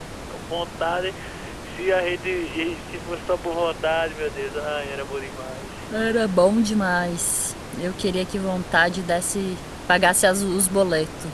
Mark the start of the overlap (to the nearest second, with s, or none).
none